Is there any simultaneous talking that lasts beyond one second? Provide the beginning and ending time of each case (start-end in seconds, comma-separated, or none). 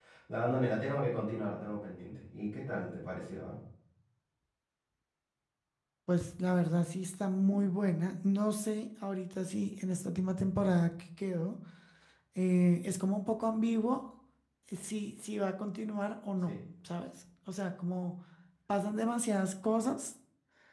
none